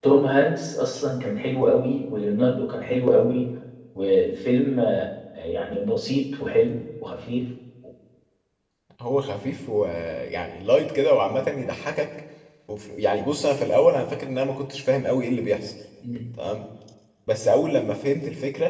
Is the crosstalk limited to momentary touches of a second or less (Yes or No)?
Yes